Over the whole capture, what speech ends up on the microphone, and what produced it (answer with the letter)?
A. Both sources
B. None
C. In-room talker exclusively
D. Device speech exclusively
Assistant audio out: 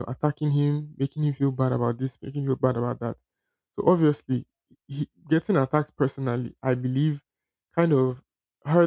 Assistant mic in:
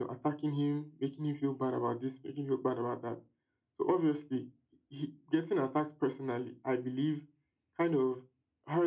D